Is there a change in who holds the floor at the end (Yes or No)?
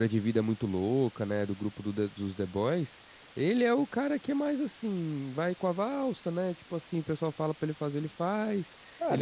Yes